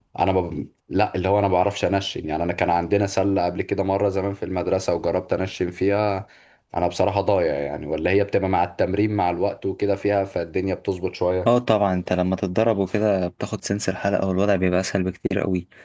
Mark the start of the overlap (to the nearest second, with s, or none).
none